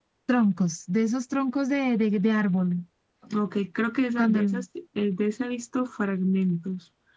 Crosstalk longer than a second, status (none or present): none